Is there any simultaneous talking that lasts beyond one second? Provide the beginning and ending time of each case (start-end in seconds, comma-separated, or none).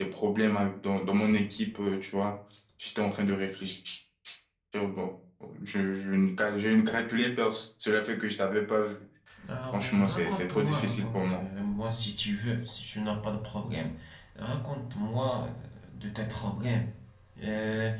9.7-11.4